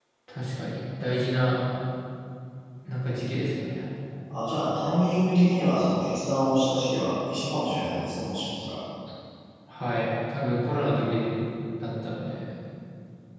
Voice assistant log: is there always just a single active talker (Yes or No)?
Yes